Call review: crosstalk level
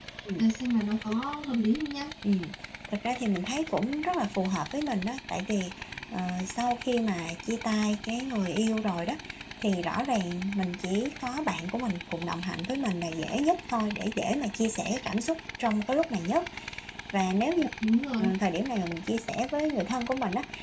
none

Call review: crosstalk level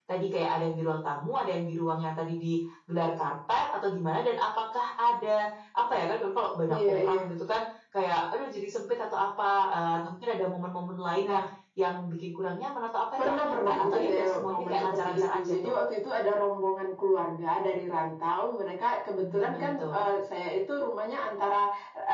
present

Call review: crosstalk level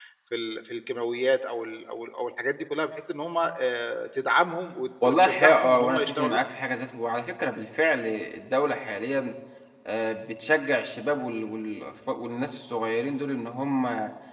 present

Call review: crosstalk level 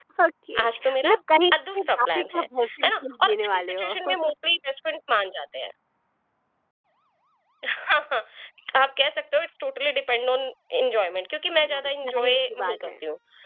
present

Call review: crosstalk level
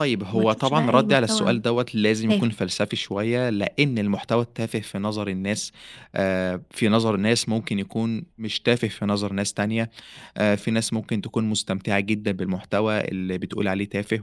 present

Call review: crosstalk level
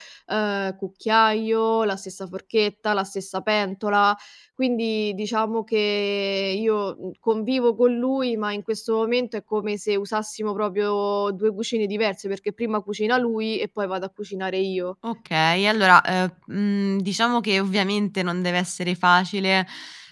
none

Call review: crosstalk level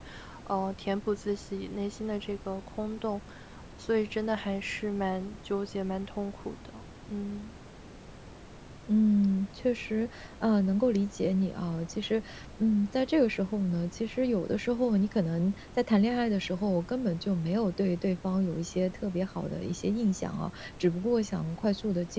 none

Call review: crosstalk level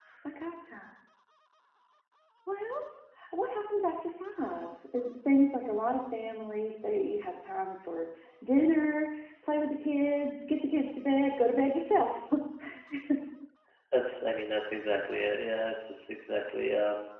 none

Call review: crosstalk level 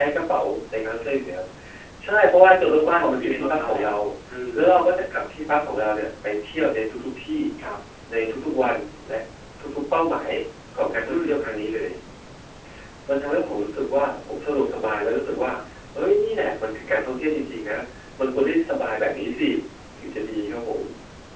present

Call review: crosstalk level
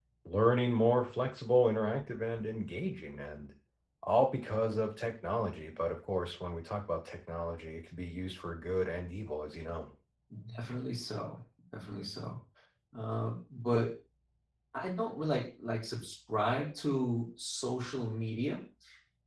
none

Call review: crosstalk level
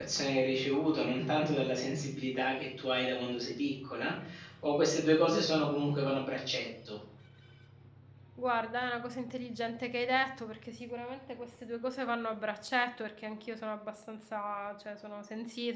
none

